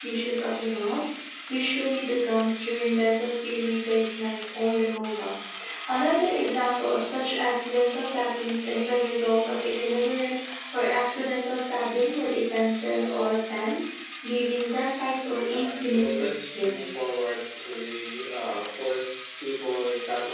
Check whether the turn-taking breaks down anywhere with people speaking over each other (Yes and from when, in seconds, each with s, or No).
Yes, from 15.4 s